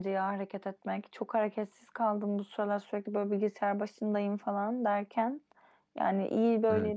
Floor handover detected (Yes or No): No